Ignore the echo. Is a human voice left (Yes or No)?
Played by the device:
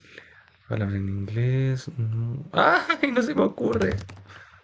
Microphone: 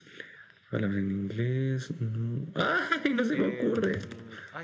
Yes